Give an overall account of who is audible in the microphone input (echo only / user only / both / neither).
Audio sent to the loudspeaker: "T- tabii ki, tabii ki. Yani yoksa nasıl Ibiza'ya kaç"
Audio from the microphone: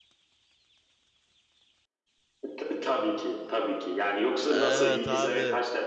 both